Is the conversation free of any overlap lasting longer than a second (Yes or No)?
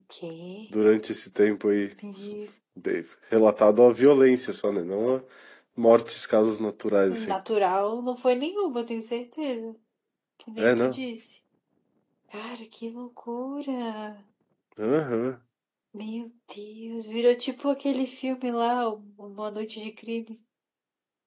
Yes